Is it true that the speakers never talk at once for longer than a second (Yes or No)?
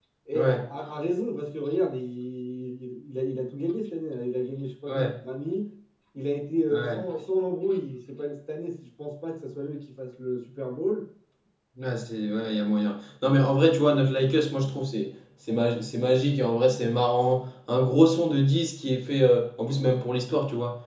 Yes